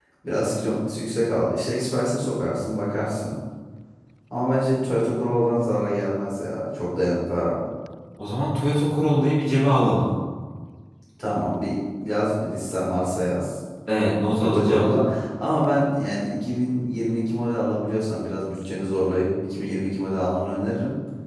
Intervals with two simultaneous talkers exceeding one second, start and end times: none

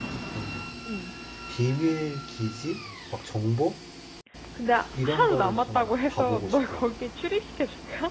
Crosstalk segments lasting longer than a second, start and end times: 5.0-6.8

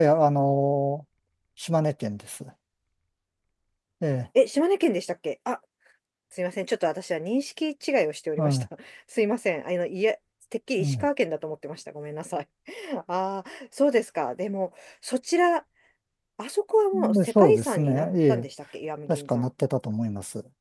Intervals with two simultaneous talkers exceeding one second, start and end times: 16.9-18.5

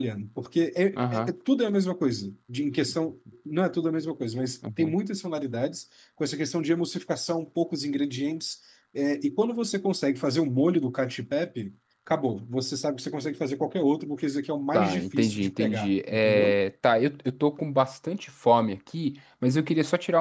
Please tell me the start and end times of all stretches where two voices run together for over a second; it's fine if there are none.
14.7-16.6

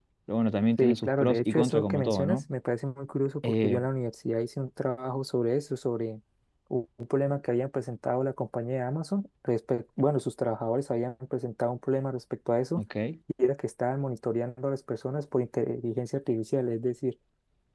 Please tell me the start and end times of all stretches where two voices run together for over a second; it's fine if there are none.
0.8-2.4

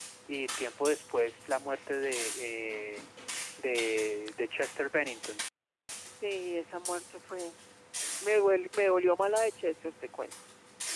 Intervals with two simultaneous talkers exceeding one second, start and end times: none

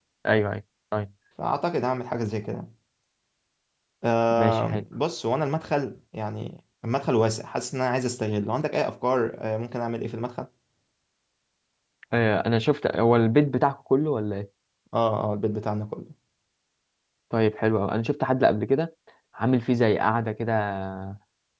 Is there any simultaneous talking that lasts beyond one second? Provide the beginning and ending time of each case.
none

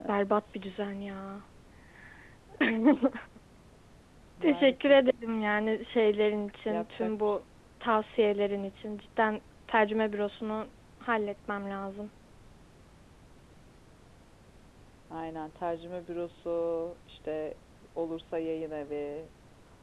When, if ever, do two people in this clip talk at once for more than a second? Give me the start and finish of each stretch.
none

